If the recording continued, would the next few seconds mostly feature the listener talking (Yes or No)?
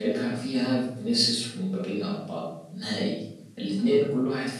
No